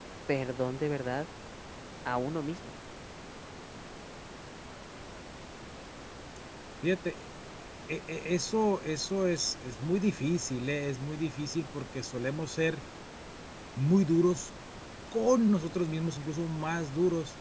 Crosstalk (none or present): none